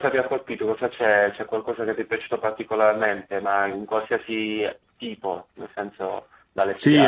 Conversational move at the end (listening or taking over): taking over